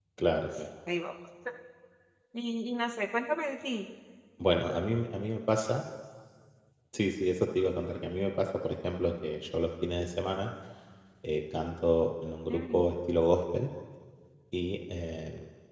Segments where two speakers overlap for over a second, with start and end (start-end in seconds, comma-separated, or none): none